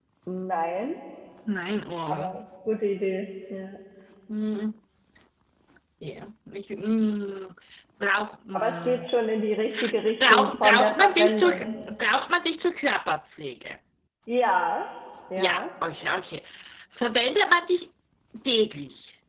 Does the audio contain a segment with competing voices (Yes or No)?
Yes